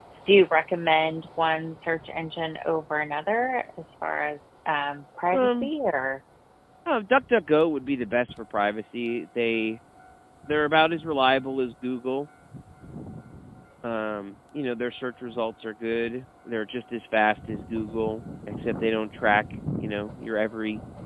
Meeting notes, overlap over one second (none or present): none